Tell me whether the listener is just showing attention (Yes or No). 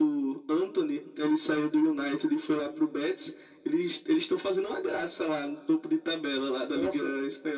No